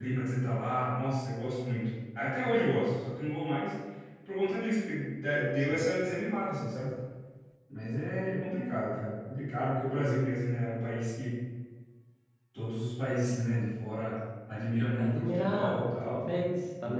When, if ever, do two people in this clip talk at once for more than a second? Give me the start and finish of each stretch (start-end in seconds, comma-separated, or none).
14.9-16.3